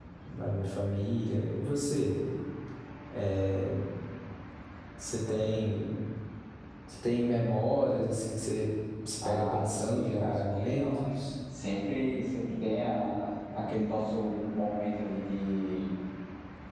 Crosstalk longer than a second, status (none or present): present